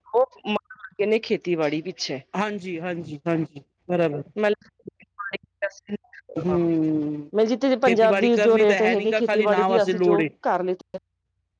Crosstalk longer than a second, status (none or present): present